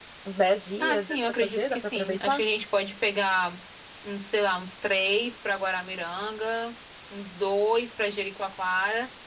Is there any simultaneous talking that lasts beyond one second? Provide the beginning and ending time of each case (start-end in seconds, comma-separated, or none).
0.8-2.4